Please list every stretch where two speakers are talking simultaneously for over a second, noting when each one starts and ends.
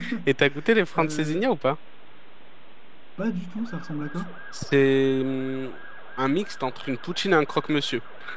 none

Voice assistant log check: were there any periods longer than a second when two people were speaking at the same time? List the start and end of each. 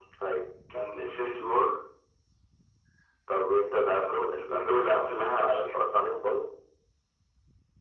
3.9-5.9

